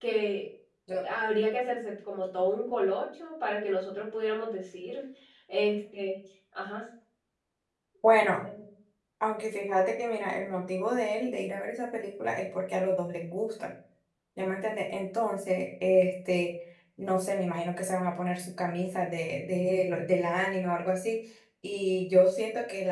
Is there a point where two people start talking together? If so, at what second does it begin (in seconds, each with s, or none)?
none